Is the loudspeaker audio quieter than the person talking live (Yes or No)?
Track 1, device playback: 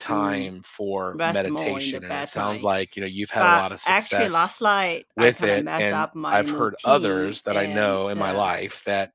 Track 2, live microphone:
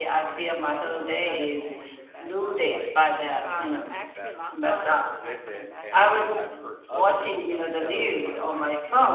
Yes